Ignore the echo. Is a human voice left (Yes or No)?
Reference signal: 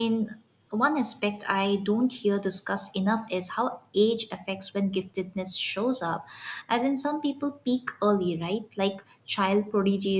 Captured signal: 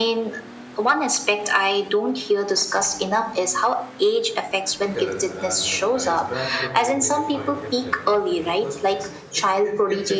Yes